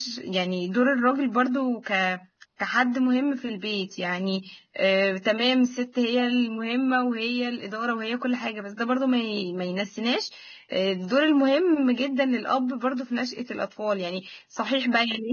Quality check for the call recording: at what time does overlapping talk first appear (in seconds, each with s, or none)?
none